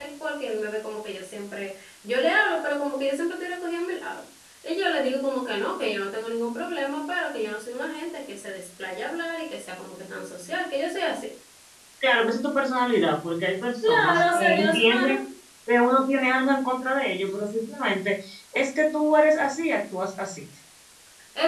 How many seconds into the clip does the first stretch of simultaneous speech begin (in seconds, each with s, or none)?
13.8 s